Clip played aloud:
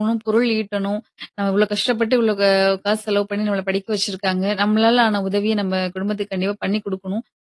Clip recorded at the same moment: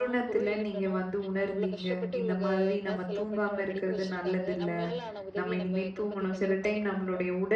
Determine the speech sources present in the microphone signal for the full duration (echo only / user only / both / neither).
both